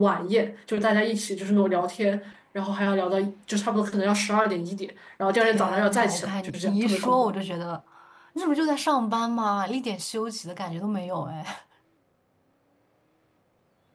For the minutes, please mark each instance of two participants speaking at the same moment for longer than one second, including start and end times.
5.4-7.3

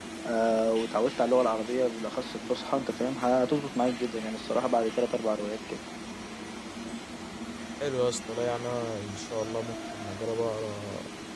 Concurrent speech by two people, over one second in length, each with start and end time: none

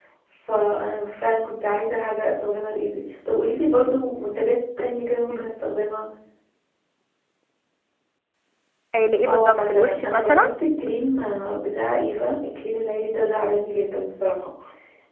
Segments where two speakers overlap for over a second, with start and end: 9.3-10.5

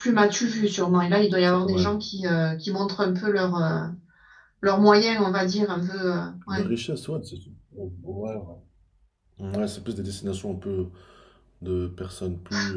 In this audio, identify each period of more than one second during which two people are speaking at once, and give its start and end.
none

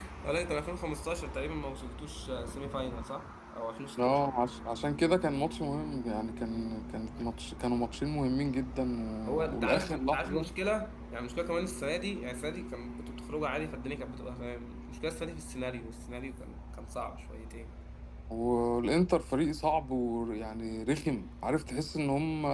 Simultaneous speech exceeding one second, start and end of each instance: 9.3-10.5

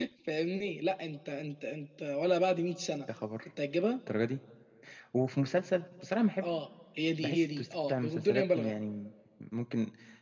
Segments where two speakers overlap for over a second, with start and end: 7.2-8.7

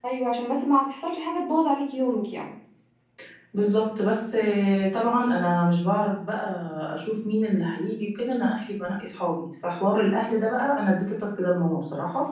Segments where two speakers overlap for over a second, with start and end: none

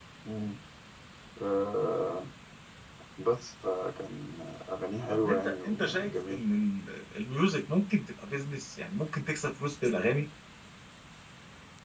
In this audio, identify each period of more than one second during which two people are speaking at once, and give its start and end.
5.1-6.4

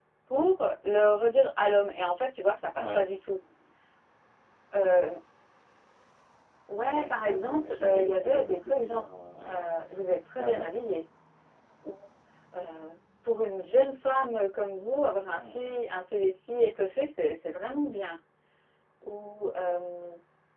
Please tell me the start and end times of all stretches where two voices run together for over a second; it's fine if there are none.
6.8-9.1

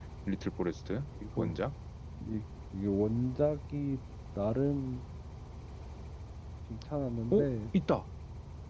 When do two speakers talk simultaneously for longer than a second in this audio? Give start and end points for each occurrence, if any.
none

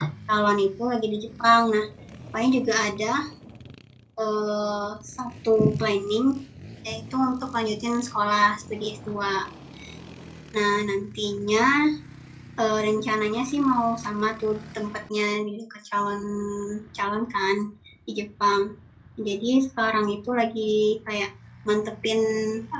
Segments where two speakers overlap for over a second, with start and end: none

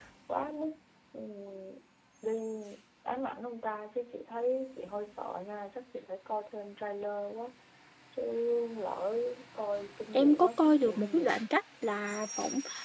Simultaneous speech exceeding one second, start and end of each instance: 10.1-11.4

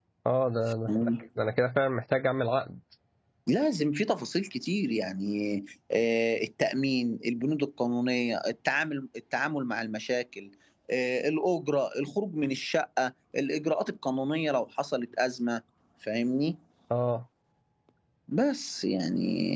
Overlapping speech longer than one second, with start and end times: none

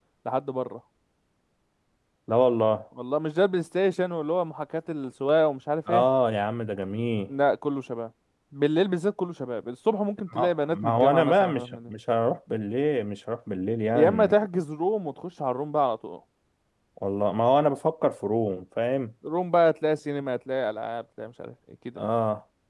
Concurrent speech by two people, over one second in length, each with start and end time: 10.3-11.9

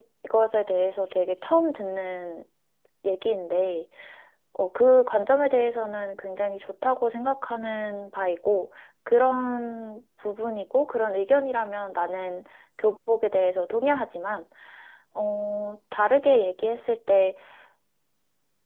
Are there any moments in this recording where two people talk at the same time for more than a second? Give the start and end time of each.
none

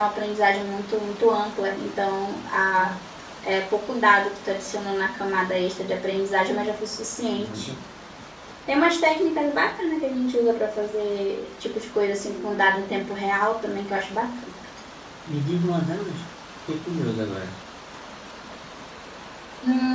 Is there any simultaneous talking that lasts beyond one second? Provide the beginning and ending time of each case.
none

